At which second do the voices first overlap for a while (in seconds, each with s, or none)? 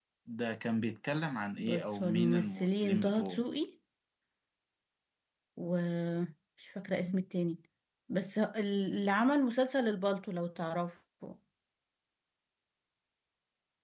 1.6 s